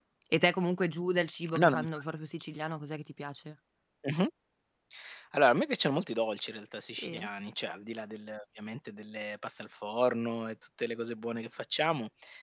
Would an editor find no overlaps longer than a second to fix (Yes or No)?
Yes